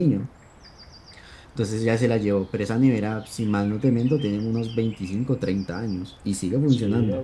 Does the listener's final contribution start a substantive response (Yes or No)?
Yes